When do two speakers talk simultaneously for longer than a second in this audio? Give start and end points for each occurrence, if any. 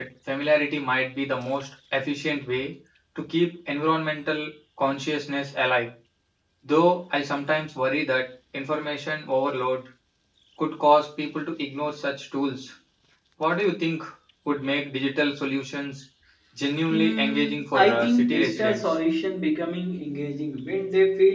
16.9-18.9

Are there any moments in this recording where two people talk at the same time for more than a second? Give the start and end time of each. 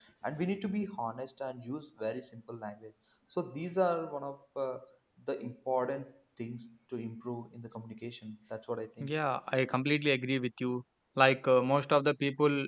none

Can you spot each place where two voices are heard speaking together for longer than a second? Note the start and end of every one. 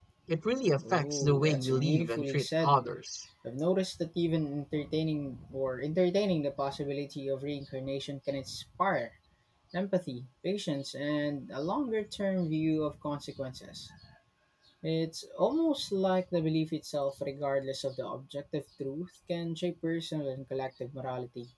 0.9-2.8

